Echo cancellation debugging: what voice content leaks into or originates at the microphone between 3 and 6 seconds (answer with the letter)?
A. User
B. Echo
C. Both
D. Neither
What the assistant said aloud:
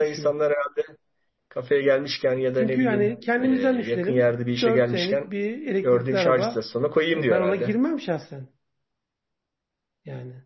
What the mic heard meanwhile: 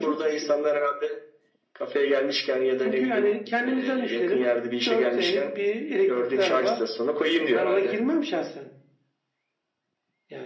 B